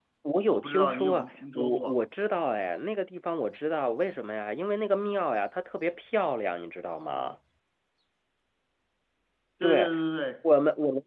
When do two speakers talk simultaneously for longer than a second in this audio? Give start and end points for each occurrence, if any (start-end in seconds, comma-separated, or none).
0.5-2.0